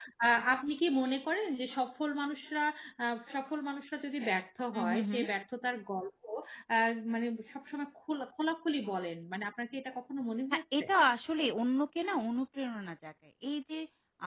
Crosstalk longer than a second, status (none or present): none